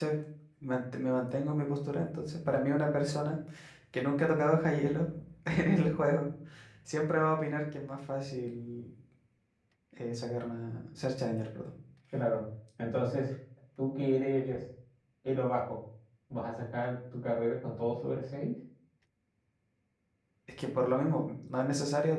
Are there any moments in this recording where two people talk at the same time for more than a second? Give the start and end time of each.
none

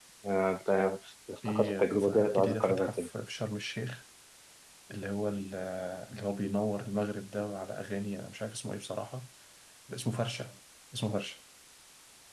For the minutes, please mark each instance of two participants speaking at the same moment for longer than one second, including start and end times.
1.4-3.1

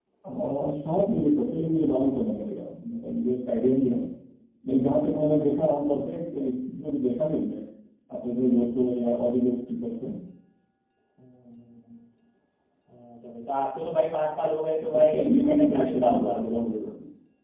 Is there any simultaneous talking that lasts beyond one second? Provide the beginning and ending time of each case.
14.9-16.4

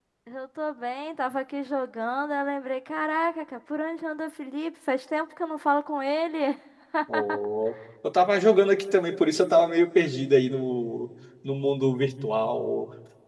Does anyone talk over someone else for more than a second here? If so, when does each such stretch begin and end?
none

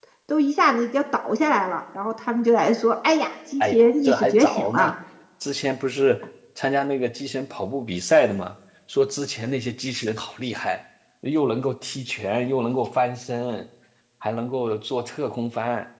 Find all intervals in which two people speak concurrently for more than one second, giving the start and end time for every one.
3.6-4.9

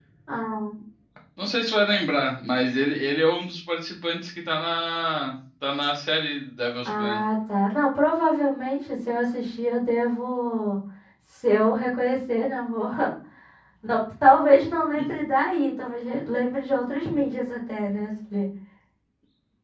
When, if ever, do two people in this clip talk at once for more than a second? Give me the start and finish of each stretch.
none

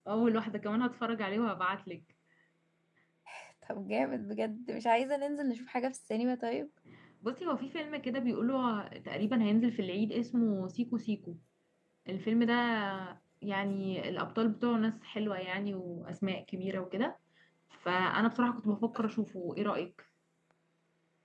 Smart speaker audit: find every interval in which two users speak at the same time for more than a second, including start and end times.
none

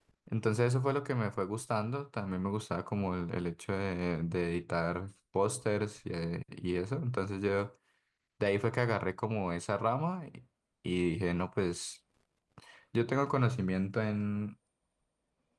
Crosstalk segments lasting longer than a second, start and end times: none

